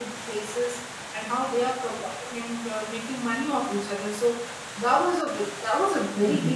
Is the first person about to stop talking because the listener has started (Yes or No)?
Yes